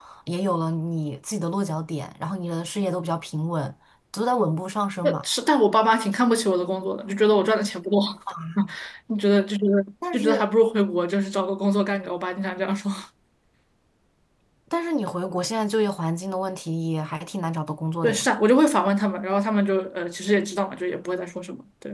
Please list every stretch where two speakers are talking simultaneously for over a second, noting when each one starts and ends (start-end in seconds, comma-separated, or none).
none